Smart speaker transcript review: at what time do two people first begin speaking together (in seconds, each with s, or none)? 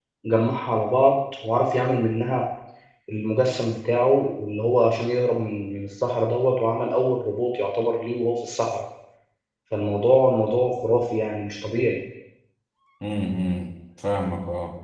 none